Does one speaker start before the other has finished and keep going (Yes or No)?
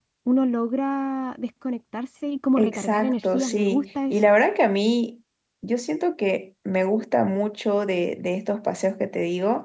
Yes